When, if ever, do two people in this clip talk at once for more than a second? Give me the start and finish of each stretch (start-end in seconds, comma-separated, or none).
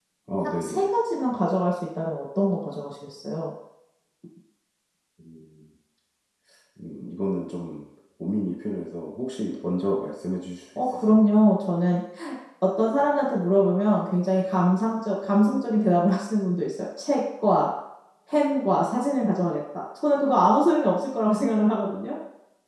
none